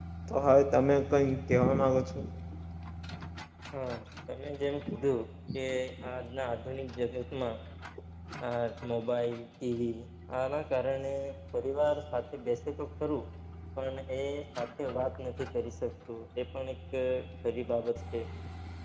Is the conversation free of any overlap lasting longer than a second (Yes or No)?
Yes